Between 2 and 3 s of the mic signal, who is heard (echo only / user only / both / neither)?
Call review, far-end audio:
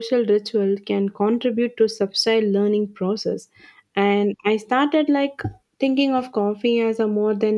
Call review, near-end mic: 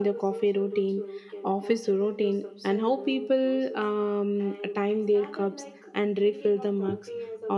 both